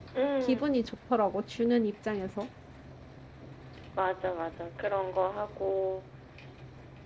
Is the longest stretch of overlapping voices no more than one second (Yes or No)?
Yes